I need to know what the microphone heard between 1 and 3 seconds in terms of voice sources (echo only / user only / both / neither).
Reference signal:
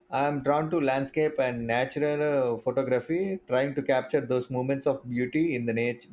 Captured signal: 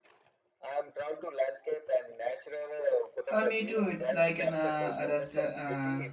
echo only